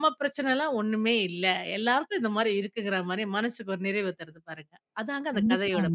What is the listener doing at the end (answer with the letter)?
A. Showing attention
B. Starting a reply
B